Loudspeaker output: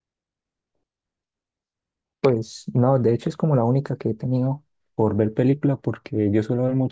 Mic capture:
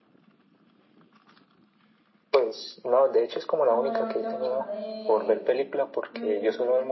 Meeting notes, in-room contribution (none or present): present